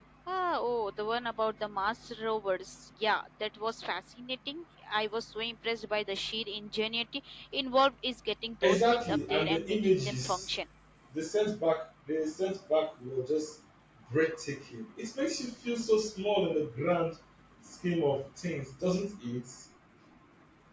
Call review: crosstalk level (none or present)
present